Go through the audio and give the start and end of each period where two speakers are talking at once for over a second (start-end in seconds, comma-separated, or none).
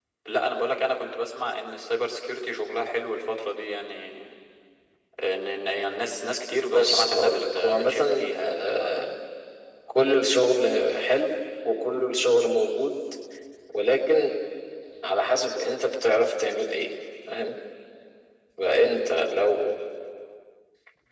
6.7-8.6